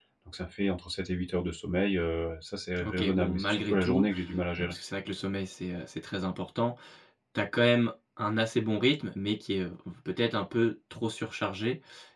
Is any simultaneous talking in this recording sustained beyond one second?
Yes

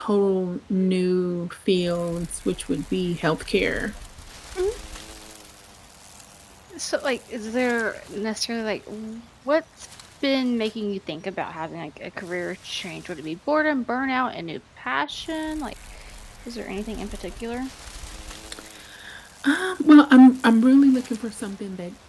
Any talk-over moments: No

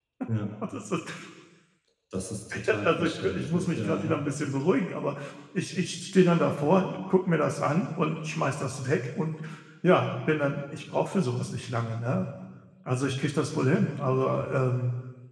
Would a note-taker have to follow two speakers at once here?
Yes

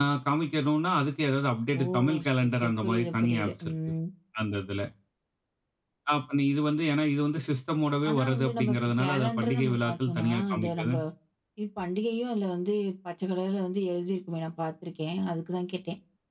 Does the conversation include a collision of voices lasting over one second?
Yes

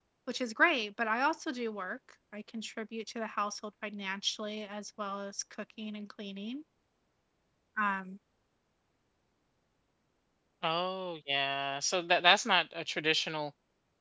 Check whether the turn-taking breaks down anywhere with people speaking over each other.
No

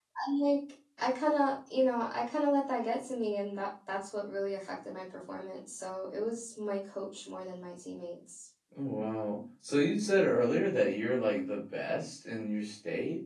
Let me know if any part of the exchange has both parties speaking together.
No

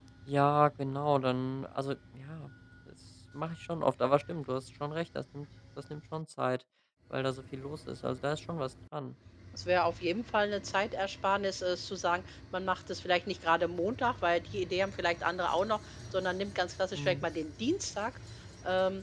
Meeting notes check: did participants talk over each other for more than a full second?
No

